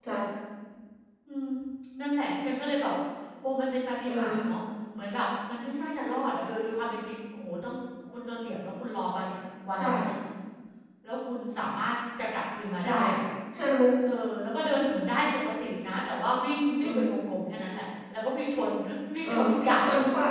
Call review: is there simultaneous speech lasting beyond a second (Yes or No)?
No